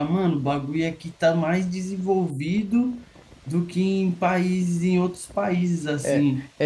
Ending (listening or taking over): taking over